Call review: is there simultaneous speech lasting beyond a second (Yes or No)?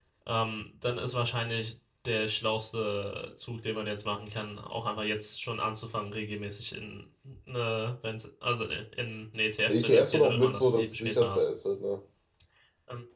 Yes